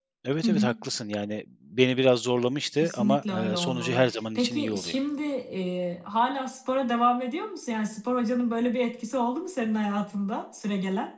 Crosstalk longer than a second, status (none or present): present